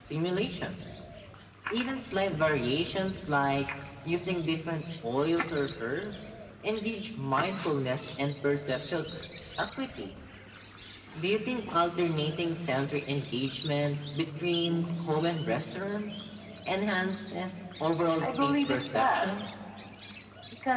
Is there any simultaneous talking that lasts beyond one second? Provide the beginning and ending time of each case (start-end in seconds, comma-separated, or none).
18.2-19.4